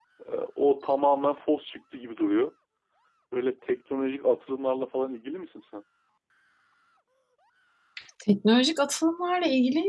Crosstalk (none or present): none